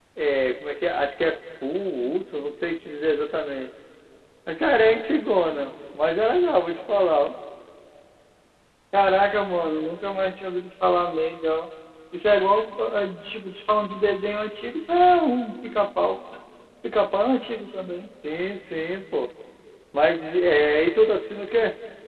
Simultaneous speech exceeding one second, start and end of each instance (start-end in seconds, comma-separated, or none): none